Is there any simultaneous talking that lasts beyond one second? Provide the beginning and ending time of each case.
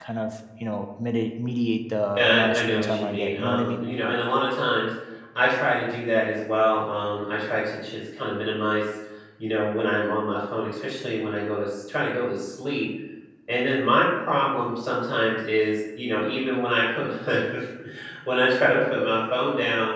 2.2-3.8

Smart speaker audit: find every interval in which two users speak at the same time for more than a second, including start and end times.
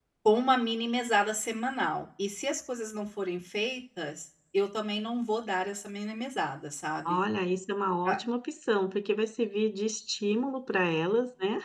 none

